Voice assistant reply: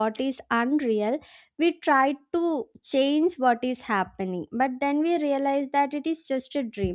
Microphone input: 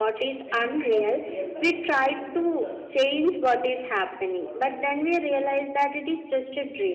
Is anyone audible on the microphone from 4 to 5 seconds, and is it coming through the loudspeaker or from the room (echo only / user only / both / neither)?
both